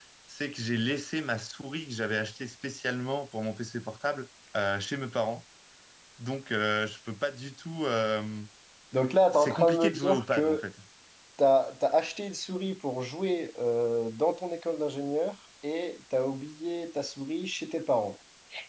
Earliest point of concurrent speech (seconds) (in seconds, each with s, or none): 9.3 s